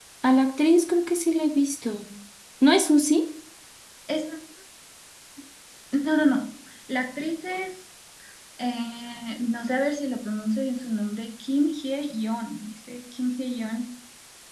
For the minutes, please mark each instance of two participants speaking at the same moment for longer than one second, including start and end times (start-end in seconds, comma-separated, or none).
none